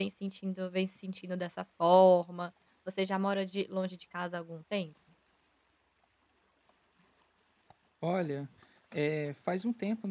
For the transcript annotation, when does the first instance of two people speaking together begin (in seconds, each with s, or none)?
none